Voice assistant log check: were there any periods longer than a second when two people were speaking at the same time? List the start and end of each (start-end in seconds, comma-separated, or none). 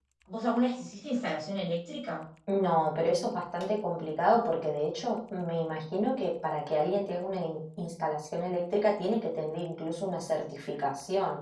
none